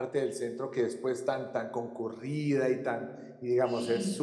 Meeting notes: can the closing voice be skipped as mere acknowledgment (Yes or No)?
Yes